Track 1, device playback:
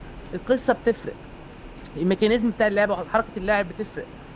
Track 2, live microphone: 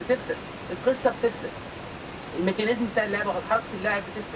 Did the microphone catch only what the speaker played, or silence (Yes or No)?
Yes